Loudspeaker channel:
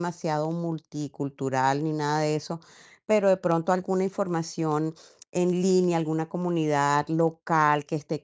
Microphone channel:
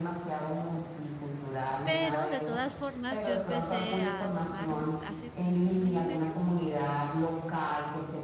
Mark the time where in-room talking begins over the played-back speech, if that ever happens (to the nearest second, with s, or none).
2 s